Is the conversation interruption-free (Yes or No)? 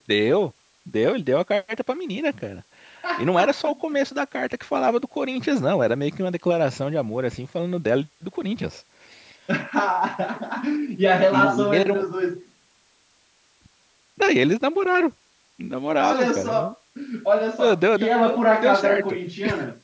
No